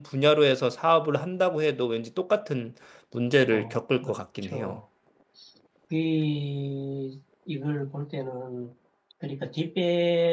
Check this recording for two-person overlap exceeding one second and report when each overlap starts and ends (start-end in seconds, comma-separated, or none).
3.5-4.8